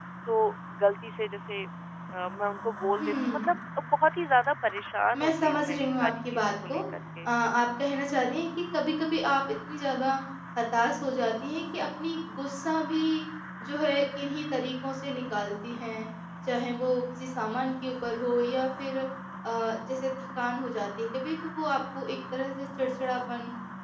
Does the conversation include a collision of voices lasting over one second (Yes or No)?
Yes